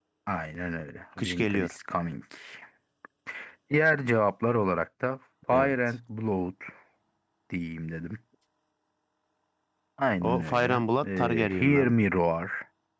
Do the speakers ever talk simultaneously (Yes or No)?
Yes